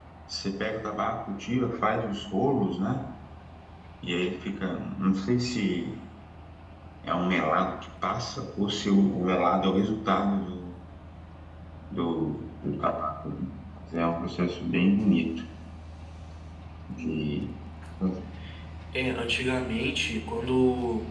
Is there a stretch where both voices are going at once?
No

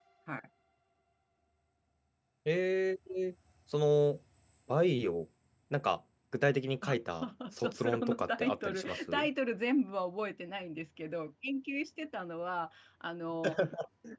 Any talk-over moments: Yes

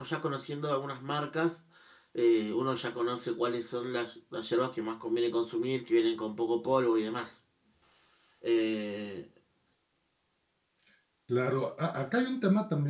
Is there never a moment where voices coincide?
Yes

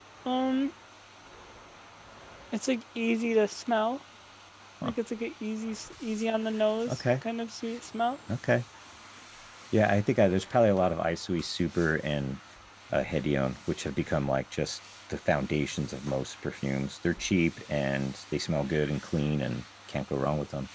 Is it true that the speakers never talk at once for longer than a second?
Yes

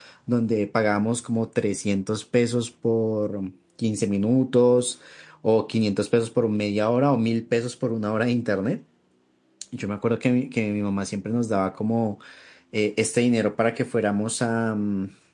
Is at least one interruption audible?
No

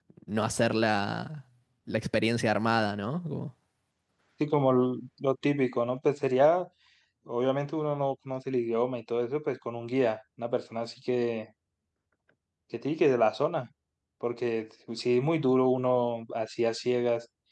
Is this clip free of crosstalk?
Yes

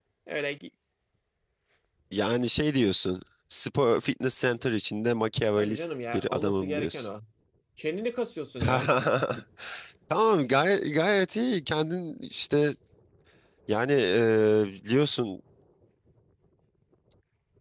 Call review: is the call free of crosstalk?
No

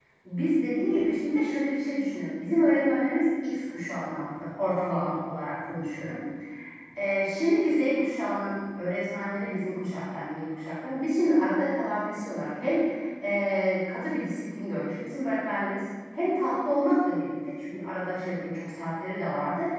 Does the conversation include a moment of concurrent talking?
No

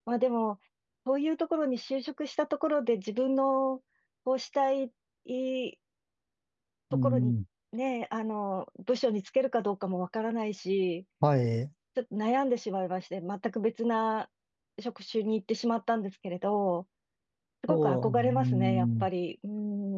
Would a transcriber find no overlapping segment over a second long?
No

